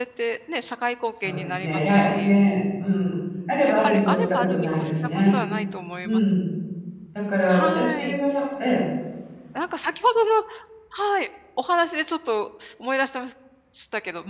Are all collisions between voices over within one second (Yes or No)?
No